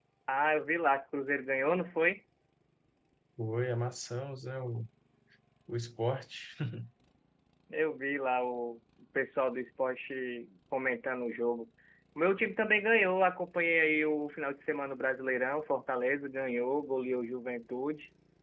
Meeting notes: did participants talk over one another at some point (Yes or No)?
No